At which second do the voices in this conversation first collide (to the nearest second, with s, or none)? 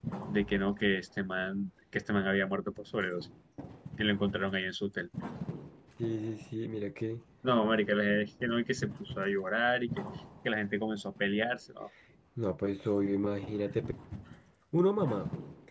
none